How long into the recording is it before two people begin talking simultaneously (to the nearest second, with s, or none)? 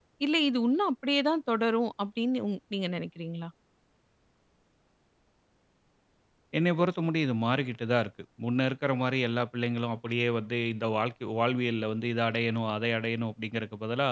none